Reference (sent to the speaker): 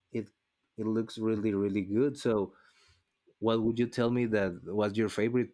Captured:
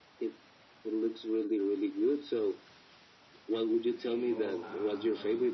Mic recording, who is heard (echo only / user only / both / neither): both